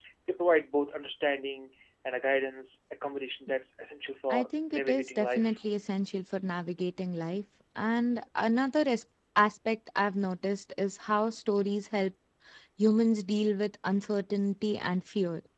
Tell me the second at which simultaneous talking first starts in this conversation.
4.3 s

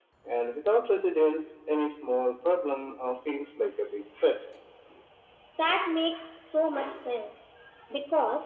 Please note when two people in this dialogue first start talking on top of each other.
none

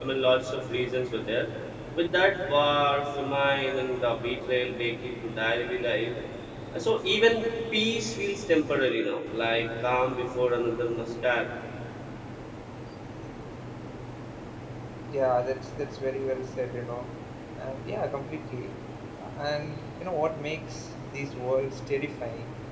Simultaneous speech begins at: none

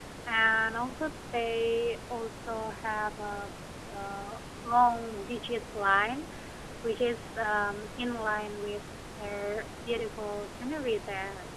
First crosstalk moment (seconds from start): none

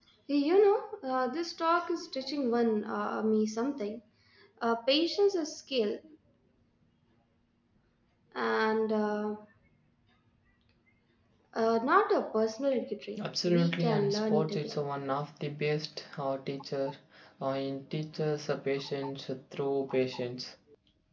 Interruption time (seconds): 13.5 s

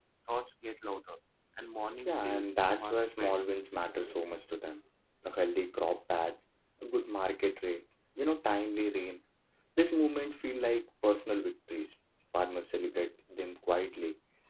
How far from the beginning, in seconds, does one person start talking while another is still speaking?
2.0 s

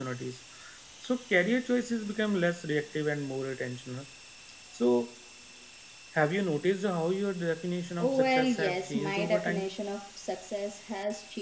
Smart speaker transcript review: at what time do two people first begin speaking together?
8.0 s

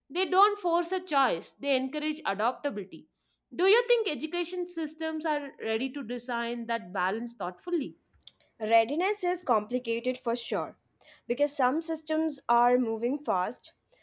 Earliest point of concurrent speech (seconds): none

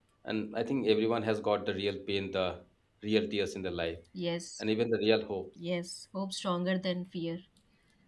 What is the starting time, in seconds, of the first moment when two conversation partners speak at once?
none

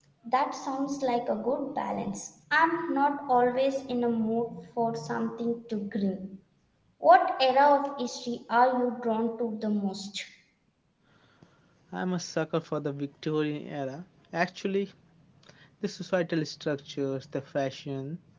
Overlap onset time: none

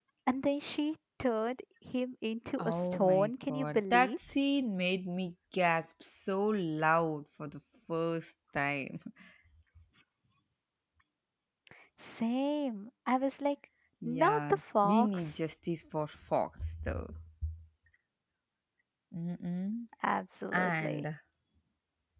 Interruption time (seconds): 2.6 s

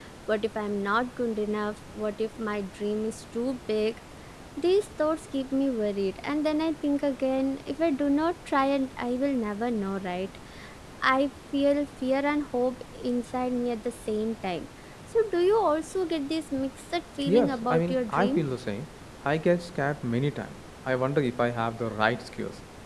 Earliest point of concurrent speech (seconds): 17.3 s

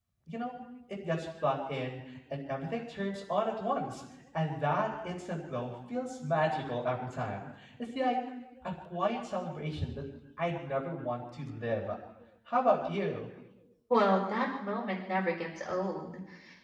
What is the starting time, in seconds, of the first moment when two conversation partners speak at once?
none

